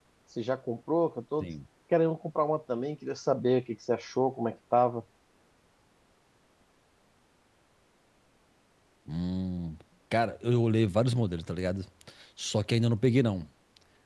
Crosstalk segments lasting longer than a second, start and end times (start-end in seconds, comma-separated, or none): none